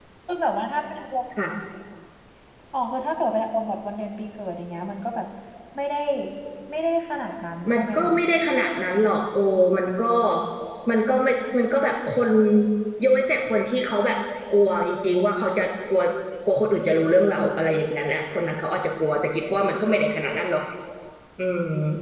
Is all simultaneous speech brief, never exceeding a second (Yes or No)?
Yes